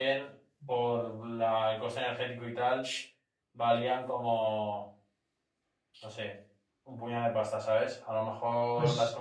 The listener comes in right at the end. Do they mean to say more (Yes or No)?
No